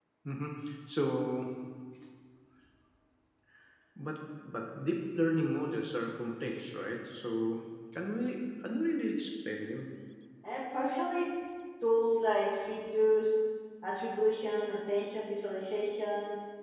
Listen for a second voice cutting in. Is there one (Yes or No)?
No